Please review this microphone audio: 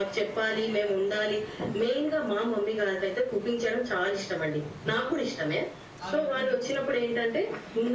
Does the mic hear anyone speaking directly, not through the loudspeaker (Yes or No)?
Yes